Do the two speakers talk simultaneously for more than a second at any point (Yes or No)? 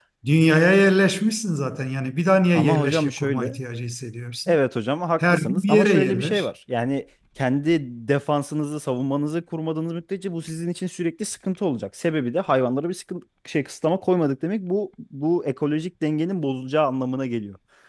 Yes